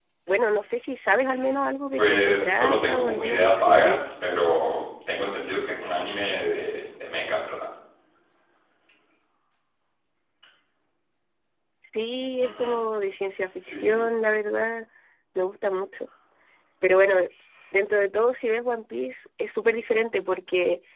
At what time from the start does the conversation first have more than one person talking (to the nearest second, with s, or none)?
2 s